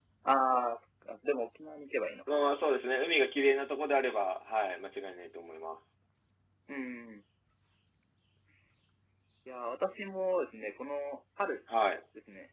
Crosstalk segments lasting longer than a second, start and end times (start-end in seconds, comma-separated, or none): none